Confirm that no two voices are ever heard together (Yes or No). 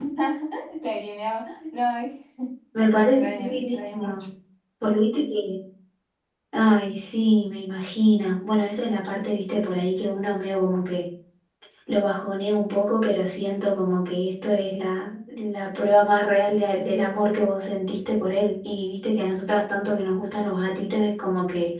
No